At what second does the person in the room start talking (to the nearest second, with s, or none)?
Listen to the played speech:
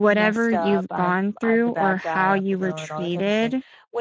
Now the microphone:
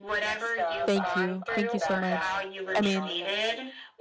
1 s